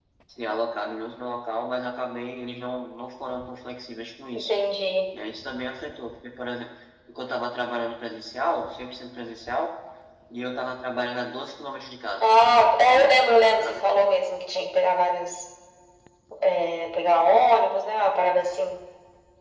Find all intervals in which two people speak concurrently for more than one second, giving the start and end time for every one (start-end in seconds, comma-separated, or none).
none